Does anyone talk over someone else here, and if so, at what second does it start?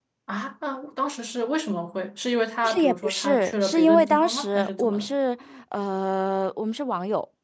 2.6 s

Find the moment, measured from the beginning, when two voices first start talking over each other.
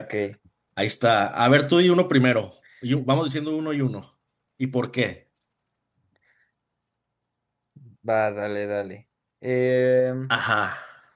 none

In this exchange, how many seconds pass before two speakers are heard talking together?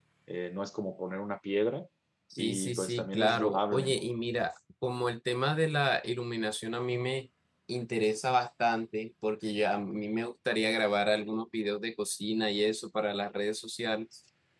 2.4 s

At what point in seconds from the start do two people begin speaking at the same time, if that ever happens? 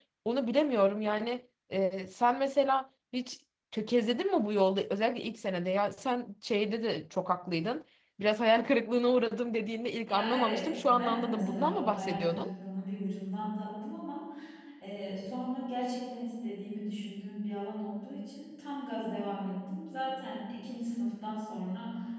10.1 s

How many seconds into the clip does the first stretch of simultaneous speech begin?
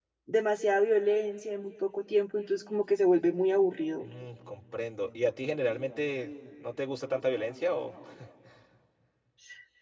none

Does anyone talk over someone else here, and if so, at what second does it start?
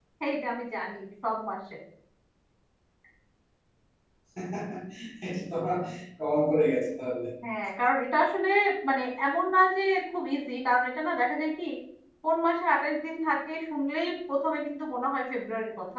none

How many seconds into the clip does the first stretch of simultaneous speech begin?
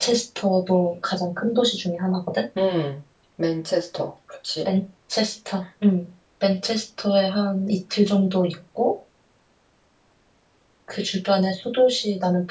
none

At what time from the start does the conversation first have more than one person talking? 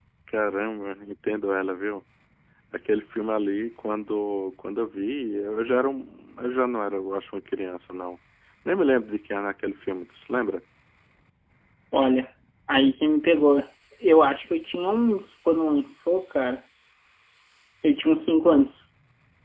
none

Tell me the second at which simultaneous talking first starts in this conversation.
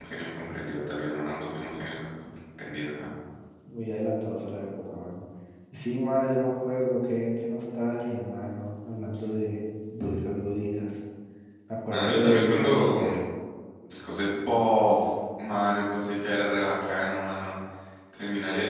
11.9 s

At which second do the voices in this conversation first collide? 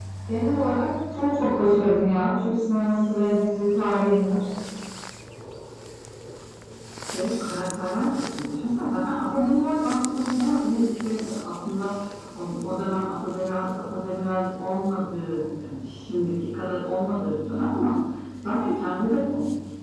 none

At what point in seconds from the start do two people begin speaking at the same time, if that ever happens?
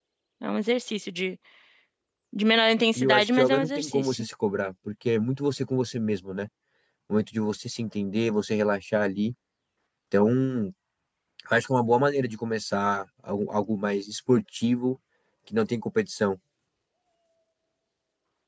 3.0 s

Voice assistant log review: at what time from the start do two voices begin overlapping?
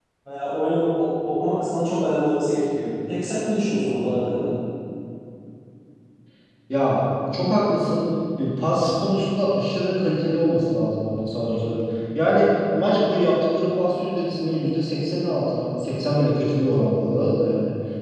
none

